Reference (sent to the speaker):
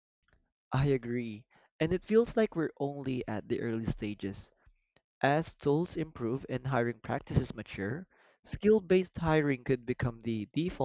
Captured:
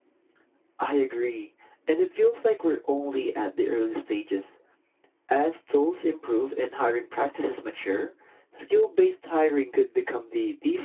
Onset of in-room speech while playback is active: none

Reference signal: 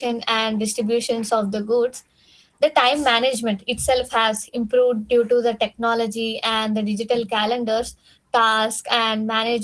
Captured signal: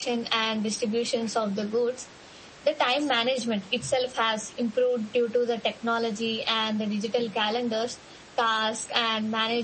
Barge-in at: none

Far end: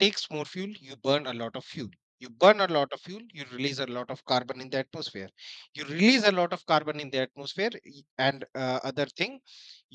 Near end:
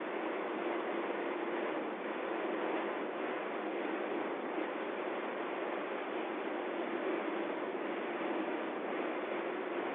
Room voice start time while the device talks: none

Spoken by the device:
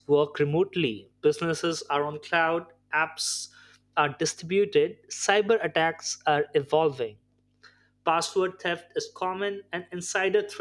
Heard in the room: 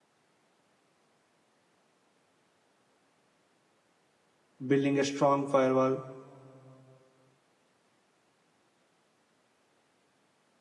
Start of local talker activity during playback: 5 s

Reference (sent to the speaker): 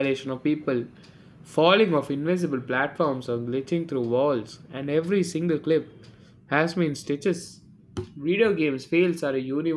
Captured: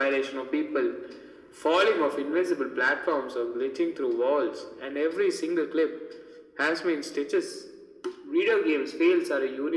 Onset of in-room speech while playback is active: none

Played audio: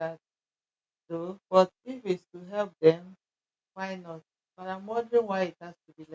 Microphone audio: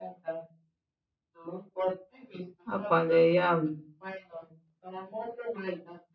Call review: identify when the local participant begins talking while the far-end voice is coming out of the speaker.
3 s

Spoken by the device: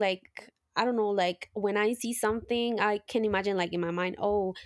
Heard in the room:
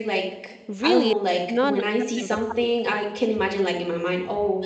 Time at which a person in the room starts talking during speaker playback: 1 s

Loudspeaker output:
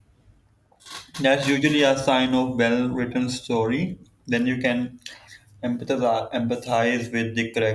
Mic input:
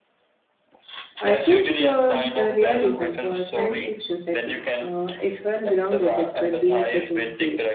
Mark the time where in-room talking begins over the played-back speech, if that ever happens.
1 s

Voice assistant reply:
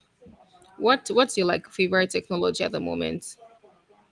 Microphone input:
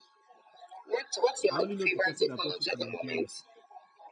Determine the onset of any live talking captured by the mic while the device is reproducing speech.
1 s

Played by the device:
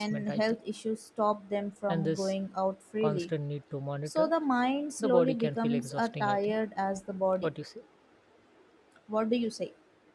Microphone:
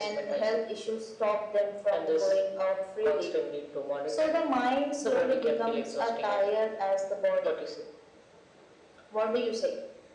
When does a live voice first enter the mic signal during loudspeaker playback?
none

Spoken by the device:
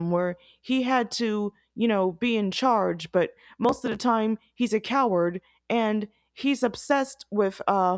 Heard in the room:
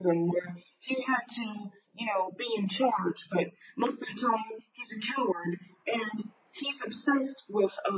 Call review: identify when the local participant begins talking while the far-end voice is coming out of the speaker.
none

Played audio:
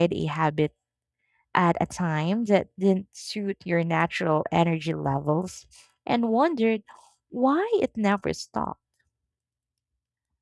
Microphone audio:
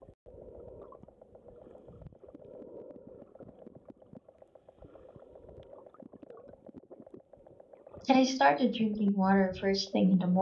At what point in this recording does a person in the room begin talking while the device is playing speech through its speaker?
8 s

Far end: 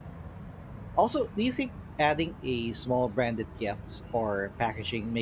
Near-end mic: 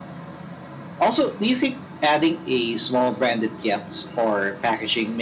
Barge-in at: none

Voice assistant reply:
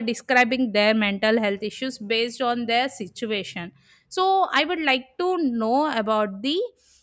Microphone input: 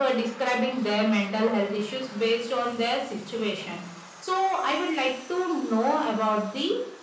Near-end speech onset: none

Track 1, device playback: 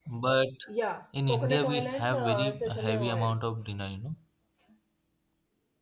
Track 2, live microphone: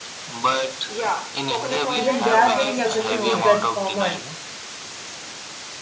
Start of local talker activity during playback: 2 s

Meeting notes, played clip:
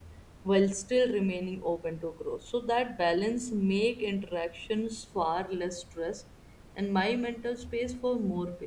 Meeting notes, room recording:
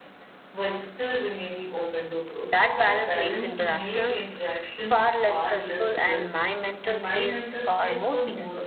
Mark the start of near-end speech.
2 s

